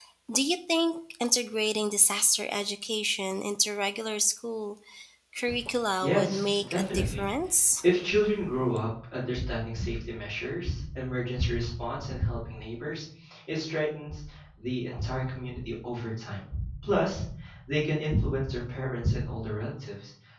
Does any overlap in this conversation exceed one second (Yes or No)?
Yes